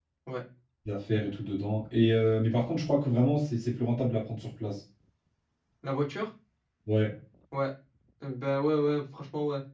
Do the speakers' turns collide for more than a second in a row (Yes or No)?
No